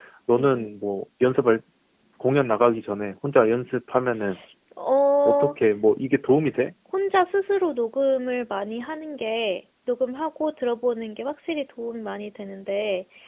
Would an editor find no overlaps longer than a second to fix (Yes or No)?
Yes